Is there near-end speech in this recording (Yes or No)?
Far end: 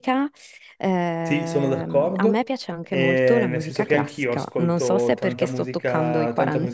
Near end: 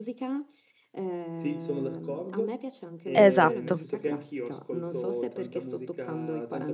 Yes